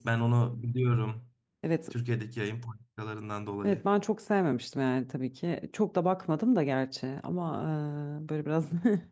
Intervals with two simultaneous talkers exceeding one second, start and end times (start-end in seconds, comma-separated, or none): none